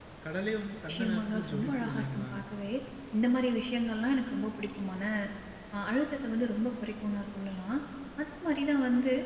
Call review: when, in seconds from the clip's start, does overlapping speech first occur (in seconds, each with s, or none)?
0.9 s